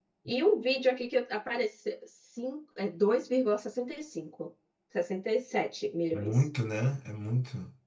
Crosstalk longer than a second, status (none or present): none